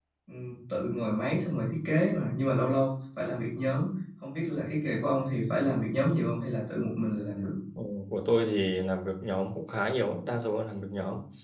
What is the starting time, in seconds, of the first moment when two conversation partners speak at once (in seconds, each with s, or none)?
none